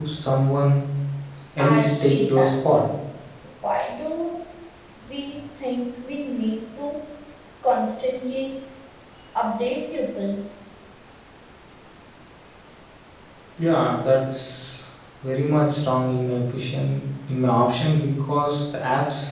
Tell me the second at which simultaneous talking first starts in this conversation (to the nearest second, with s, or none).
2 s